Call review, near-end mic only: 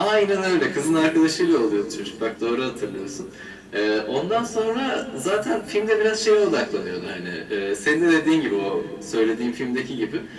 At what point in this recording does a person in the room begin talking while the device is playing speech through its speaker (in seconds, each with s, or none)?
none